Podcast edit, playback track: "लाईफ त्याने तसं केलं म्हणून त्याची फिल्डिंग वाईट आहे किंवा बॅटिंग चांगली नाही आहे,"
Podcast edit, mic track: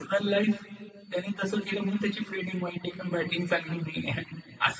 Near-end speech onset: none

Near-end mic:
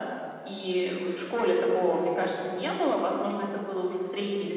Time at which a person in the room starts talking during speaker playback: none

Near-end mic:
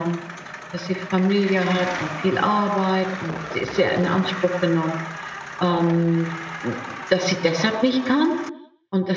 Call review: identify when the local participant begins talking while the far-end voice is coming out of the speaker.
none

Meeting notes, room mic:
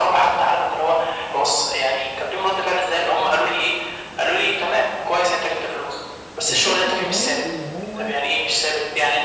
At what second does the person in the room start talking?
6 s

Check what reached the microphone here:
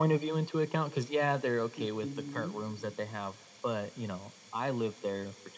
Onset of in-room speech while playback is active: 2 s

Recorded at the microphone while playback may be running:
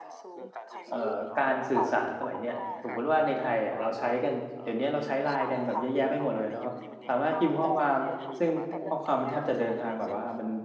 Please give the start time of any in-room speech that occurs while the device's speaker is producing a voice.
1 s

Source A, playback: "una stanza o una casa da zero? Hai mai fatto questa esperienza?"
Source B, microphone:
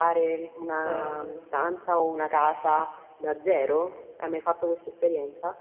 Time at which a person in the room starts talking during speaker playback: 1 s

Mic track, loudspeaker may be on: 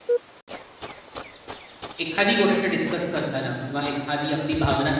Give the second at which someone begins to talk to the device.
2 s

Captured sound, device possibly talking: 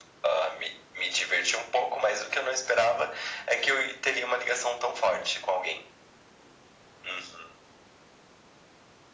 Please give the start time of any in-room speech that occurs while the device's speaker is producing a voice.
none

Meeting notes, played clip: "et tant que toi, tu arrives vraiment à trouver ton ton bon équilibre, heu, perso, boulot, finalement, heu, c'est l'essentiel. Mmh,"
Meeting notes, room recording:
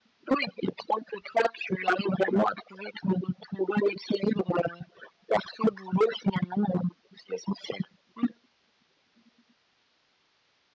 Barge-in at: none

